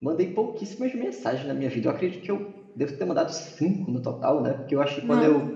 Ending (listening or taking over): listening